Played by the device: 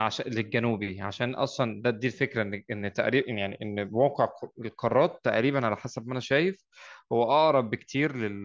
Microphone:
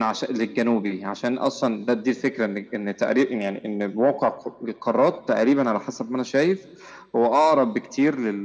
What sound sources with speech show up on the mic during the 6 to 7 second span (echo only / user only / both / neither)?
echo only